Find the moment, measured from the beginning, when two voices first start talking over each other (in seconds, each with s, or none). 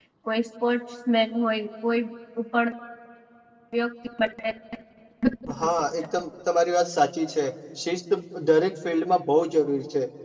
none